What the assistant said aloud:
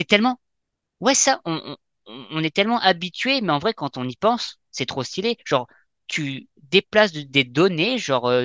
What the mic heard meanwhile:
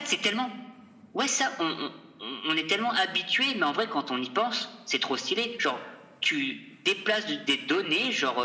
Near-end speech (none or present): none